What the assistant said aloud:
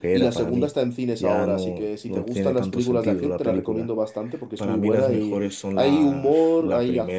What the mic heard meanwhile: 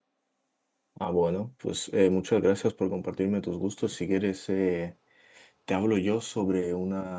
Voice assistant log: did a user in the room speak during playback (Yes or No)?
Yes